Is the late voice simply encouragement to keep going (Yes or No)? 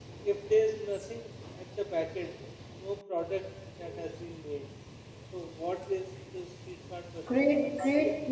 No